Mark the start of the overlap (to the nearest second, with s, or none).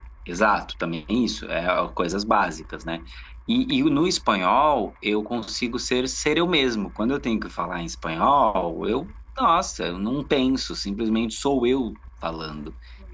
none